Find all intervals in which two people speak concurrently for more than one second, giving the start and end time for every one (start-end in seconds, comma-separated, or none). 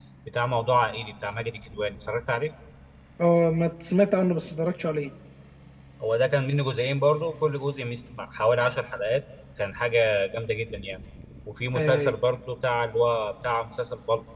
none